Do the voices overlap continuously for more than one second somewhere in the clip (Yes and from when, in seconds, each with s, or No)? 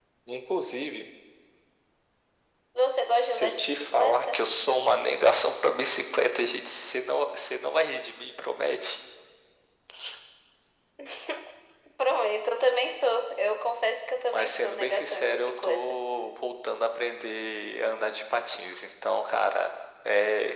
Yes, from 3.1 s